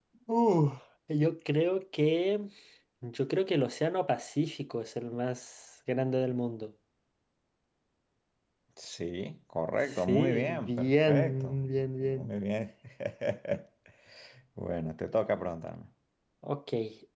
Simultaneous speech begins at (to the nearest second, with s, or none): 10 s